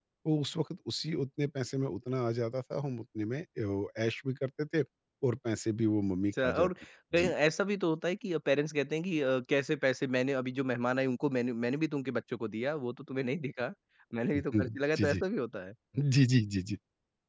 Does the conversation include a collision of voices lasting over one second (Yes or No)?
No